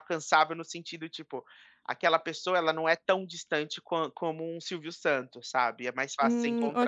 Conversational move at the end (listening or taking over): taking over